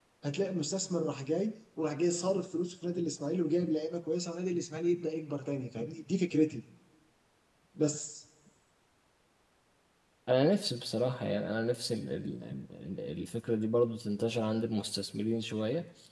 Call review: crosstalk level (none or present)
none